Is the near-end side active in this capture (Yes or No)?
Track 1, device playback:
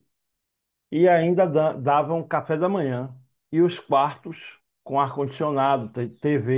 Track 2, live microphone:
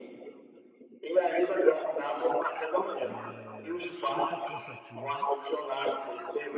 Yes